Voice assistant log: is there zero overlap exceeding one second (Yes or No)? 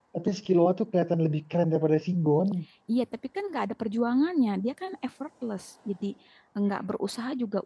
Yes